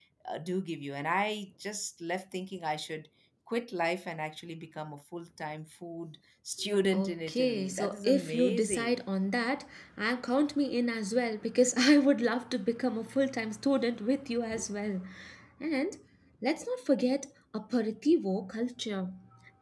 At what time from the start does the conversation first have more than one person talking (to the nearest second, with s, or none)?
7 s